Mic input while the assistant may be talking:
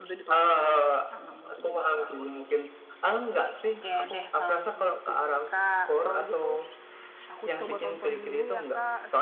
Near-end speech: none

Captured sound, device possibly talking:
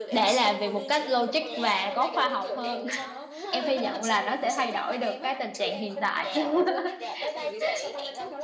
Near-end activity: present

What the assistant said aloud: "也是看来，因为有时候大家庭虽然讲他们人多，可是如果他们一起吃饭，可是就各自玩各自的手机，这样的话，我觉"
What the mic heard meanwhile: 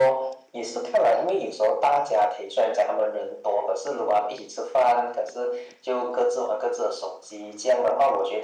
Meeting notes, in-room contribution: none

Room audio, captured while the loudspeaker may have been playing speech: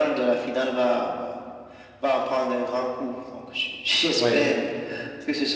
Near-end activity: present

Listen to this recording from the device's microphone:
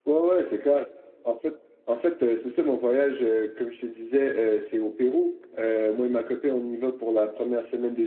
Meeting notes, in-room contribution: none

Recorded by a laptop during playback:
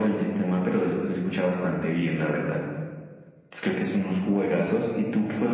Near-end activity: none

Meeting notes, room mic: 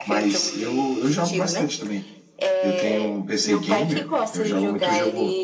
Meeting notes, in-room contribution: present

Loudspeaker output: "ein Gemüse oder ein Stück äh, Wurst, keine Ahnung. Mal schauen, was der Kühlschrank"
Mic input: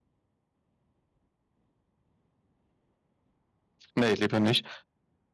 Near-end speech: present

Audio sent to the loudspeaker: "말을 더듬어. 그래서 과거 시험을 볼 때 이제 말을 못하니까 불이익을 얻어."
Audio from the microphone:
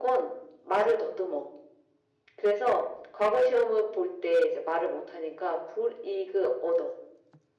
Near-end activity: none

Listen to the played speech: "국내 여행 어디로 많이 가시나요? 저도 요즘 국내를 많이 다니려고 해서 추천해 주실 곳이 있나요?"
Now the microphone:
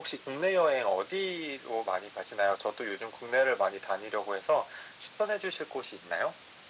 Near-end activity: none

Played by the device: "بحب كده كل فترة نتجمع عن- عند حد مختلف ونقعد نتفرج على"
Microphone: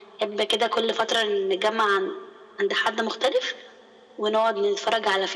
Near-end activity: none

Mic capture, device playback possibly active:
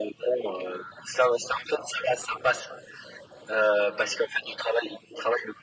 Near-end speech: none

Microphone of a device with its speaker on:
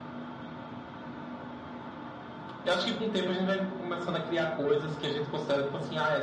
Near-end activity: none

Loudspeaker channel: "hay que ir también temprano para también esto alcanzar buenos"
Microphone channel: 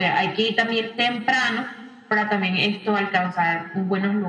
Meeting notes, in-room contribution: none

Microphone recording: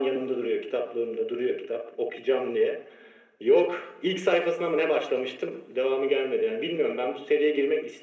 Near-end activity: none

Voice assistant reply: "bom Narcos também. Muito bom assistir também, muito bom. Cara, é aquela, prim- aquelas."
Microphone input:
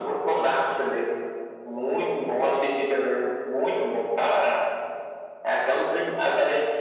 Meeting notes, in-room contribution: none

